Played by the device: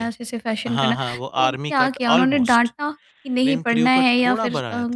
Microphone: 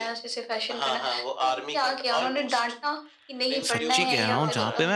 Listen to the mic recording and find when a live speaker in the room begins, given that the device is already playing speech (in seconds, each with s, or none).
3.6 s